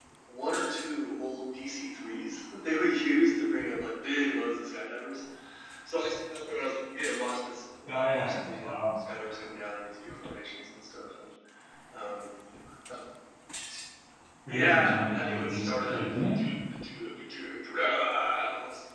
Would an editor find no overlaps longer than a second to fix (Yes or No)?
No